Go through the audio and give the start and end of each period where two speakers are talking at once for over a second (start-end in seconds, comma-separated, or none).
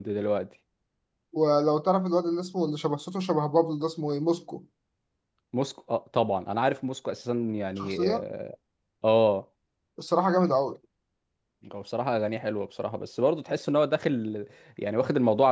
none